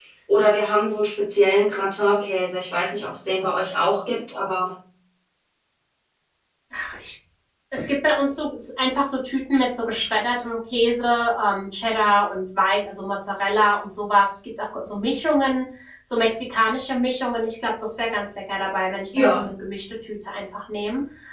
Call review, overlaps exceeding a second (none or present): none